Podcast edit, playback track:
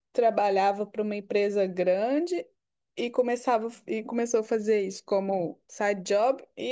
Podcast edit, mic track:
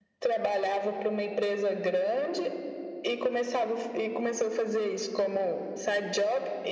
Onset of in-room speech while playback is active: none

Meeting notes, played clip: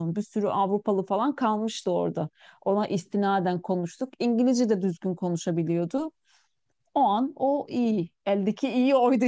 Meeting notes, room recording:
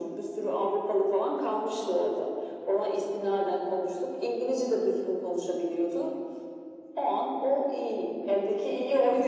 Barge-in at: none

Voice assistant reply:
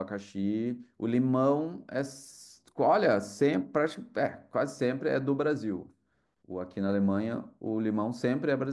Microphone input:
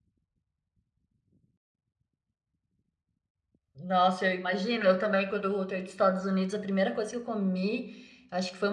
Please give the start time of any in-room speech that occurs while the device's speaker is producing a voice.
4 s

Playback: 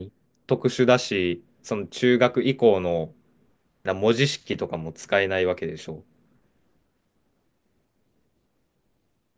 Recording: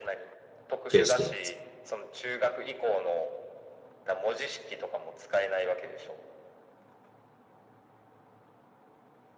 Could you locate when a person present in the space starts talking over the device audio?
1 s

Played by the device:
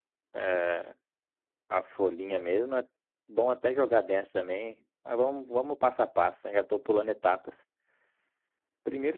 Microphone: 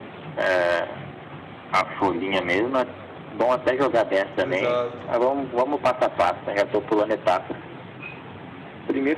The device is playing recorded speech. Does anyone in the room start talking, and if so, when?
4 s

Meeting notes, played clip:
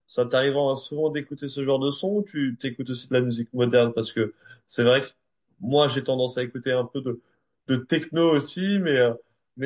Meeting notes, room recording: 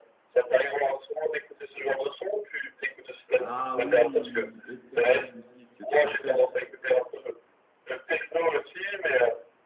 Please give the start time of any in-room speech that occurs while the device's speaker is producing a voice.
3 s

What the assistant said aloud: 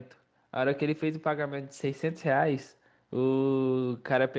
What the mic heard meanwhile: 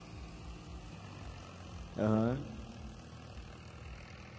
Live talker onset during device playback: 2 s

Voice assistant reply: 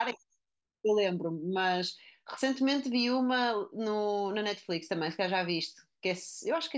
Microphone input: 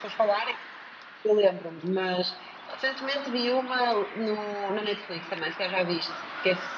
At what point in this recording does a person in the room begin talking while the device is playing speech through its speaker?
none

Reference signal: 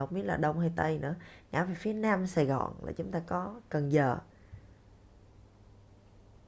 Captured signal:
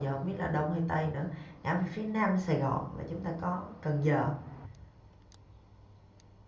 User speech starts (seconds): none

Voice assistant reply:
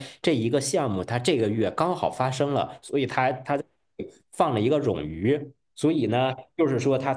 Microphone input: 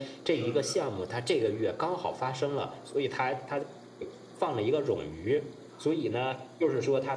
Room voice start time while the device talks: 0 s

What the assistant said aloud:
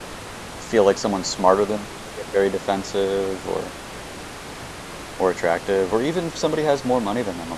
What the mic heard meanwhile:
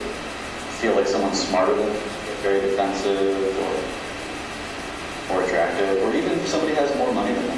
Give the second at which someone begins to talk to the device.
none

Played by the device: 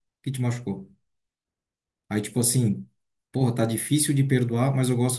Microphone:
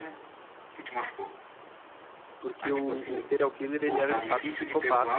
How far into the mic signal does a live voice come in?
2 s

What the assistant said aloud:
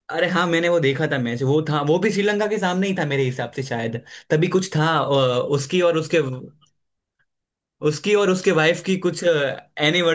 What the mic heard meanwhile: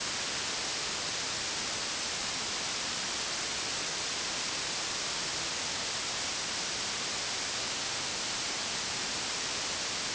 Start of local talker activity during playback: none

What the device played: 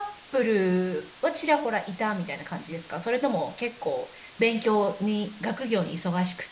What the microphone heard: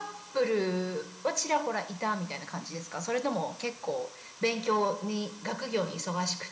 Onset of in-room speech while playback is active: none

